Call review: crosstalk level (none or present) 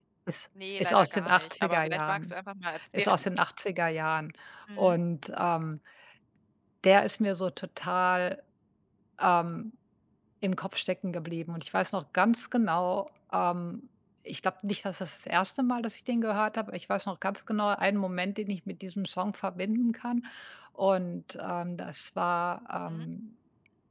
present